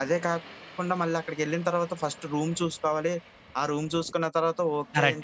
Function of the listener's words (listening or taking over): taking over